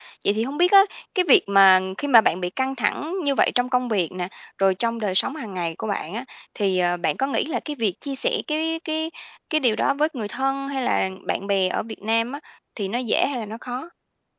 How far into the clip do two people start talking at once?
none

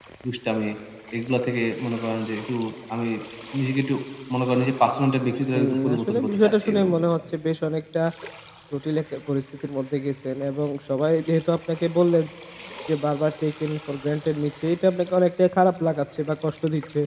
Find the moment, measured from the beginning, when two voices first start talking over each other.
5.5 s

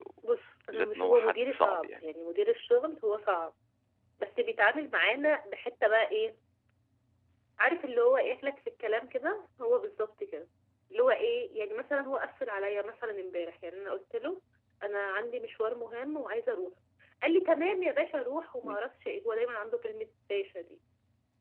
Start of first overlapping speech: 0.7 s

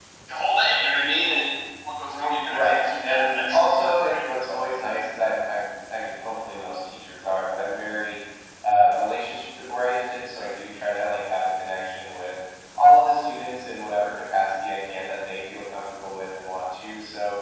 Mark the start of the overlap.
2.5 s

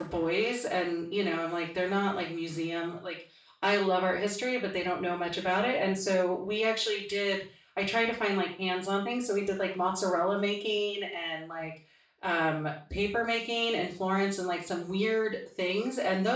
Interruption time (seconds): none

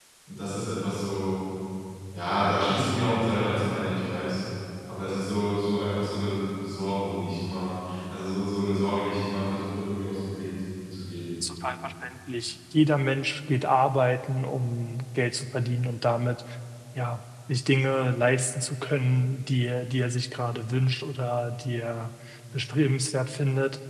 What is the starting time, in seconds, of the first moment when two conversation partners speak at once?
none

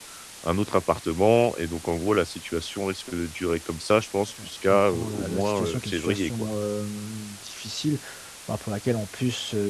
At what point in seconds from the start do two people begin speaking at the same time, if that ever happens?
4.4 s

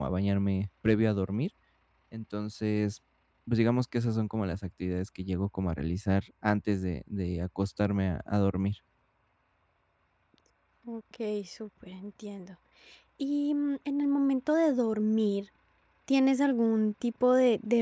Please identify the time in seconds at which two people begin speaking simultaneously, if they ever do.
none

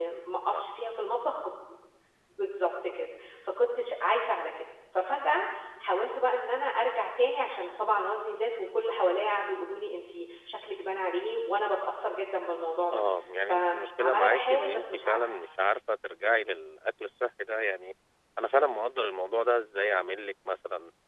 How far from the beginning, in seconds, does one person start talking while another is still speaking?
13.5 s

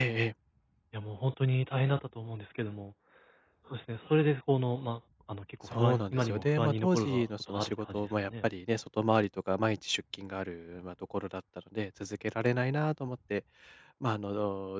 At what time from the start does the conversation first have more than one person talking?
5.7 s

